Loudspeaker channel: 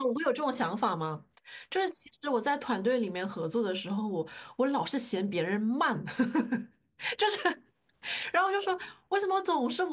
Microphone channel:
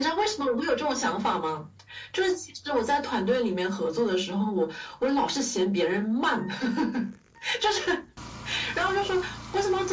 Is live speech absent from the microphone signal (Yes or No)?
Yes